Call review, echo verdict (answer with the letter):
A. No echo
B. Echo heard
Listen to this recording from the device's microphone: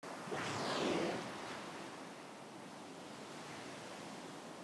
A